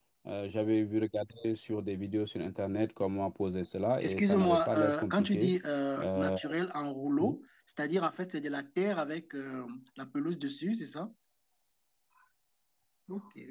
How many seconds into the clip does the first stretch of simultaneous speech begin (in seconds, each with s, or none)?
4.0 s